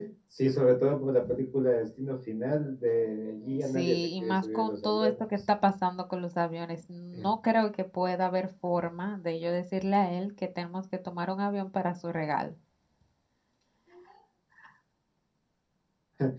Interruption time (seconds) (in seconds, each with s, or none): 3.7 s